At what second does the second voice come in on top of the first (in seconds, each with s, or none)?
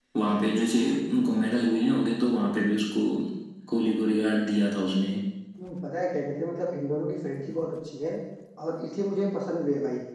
none